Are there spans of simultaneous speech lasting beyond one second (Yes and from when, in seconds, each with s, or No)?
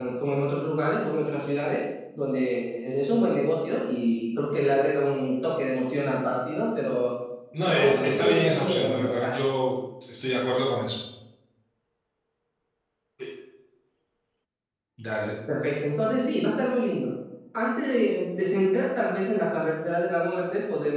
Yes, from 7.7 s